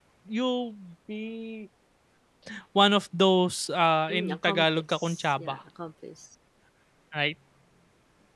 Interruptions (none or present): present